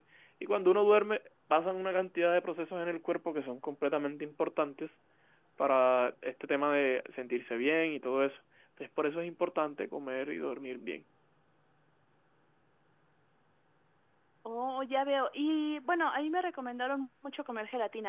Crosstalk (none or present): none